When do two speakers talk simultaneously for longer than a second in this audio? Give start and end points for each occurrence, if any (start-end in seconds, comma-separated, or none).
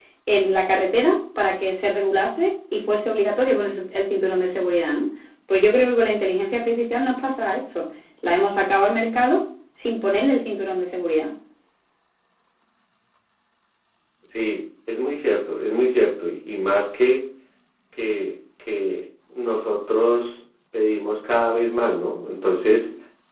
none